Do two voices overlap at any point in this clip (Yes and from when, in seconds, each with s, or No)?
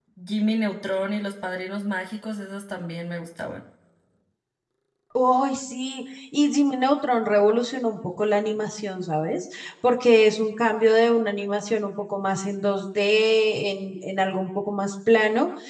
No